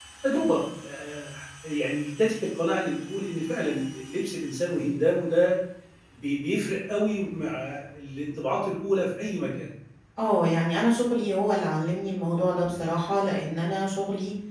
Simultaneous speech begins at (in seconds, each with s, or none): none